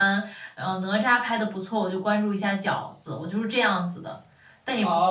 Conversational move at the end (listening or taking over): taking over